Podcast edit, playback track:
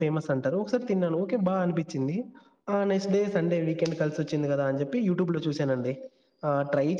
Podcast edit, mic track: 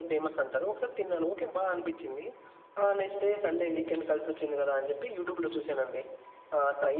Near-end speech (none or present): none